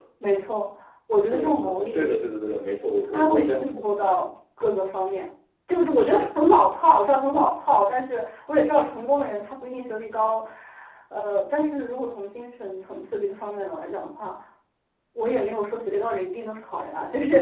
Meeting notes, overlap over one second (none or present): present